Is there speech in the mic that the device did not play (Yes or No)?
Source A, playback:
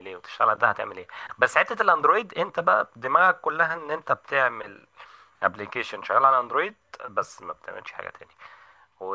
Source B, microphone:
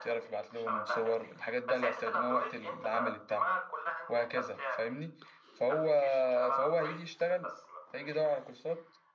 Yes